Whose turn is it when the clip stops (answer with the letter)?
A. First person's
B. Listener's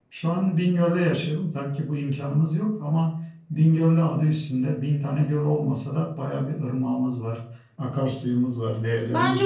B